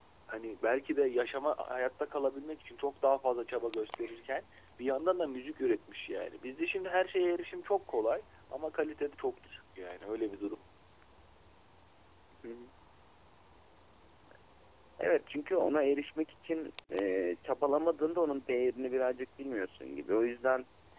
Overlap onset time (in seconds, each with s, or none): none